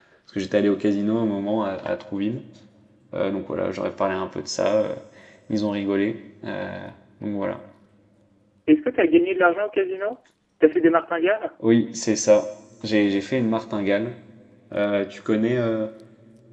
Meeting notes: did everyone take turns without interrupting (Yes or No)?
Yes